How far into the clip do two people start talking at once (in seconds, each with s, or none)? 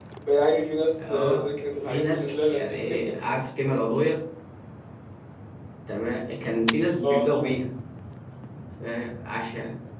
1.0 s